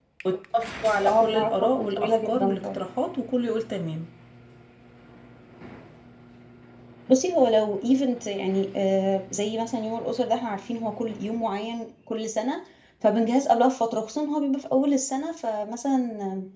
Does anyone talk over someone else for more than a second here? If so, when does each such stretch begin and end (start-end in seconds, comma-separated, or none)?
1.1-2.8